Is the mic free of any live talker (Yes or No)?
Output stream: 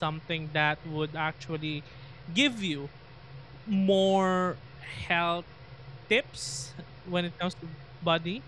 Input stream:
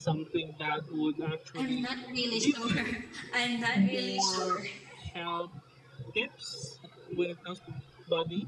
No